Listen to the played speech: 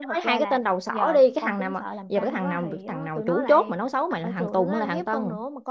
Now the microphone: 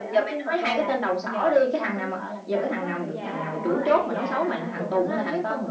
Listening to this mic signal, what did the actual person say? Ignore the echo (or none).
dạ, dạ,